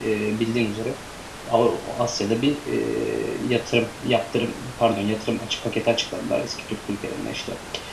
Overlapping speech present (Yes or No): No